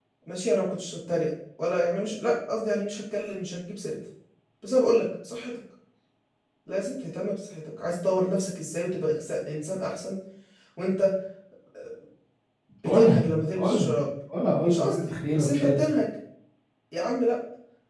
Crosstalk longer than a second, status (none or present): present